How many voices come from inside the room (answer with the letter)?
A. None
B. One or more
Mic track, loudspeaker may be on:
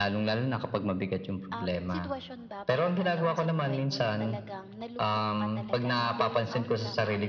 B